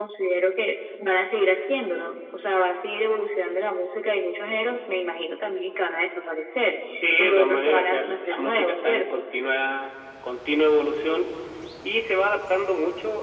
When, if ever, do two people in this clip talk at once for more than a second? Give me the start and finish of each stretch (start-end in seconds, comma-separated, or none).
7.0-9.2